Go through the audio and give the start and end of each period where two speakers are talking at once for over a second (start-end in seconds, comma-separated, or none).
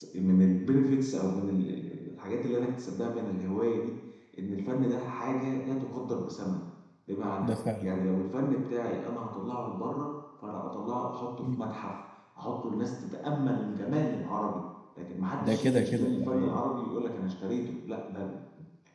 15.4-16.6